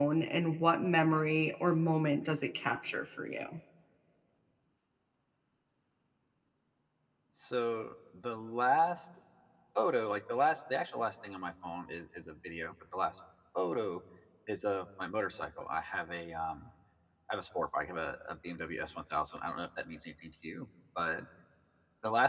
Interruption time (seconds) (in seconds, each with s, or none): none